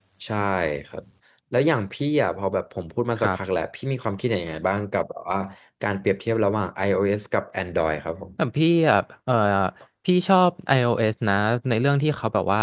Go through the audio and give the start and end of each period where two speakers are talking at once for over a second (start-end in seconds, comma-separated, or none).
none